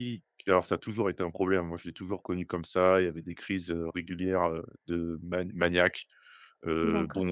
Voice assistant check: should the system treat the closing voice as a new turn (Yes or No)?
No